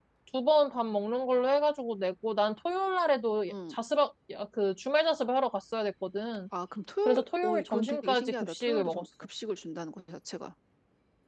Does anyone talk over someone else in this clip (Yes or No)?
Yes